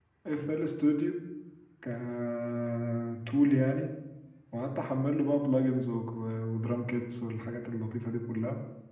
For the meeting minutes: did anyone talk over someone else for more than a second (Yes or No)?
No